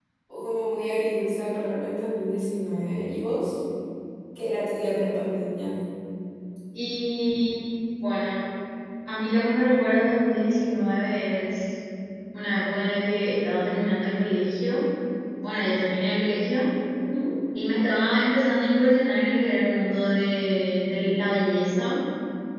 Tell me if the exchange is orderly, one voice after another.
Yes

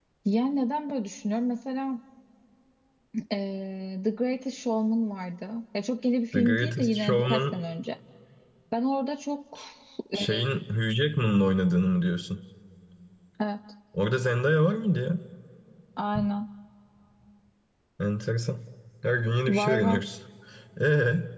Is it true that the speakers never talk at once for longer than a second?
No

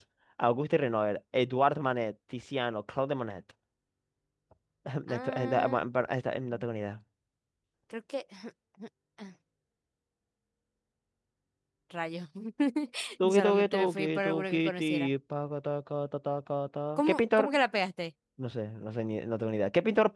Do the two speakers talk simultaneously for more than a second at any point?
Yes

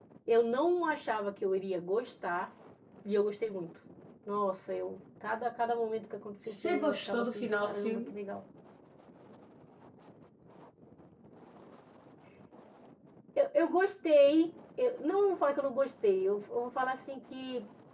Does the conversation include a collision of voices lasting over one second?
Yes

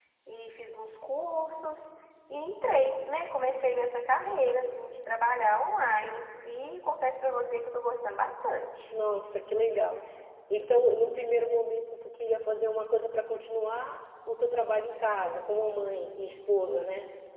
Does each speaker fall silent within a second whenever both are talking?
Yes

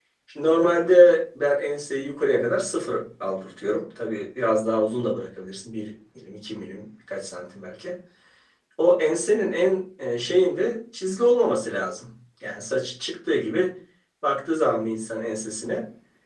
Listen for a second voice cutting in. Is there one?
No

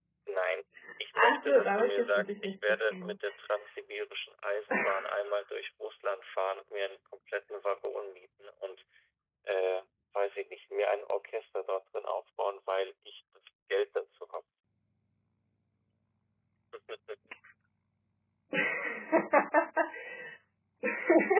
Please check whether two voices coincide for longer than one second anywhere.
Yes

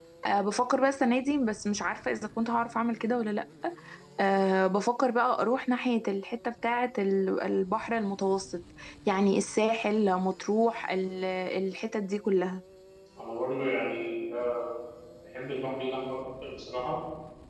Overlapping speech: No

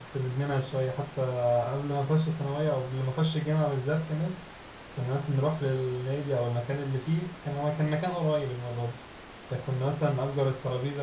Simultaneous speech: No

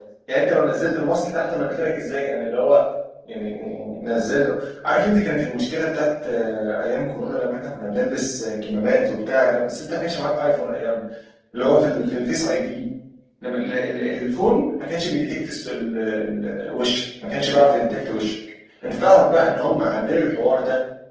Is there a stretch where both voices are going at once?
No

